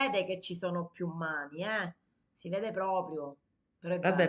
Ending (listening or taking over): taking over